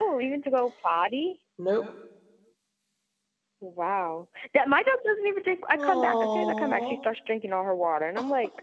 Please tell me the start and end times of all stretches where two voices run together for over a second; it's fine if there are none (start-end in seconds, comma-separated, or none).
5.7-7.0